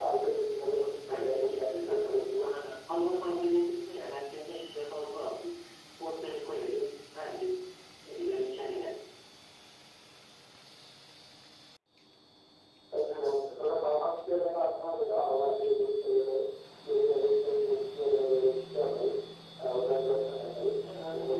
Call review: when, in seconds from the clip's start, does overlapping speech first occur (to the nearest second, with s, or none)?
1 s